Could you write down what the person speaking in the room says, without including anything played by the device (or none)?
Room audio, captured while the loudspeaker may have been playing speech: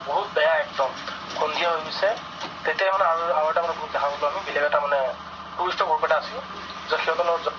none